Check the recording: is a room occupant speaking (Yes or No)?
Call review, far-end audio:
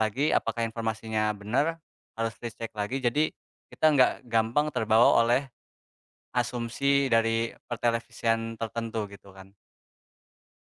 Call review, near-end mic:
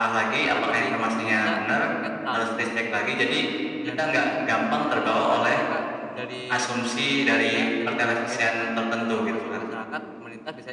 Yes